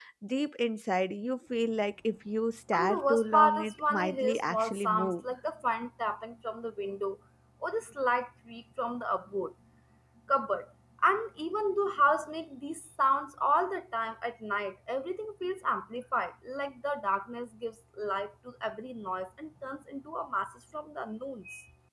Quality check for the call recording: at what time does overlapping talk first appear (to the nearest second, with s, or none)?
3 s